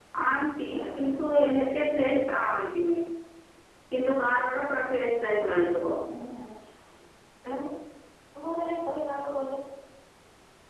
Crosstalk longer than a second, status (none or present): none